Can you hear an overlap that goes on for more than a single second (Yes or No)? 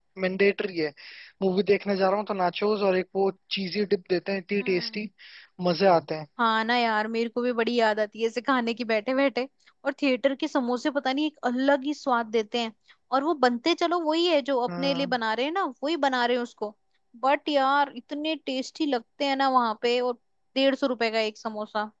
No